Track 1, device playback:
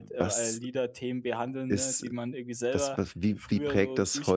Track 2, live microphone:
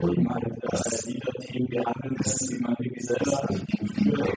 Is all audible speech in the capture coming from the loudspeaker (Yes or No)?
Yes